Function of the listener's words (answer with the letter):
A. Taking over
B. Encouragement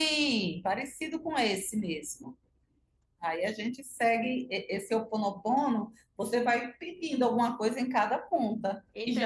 A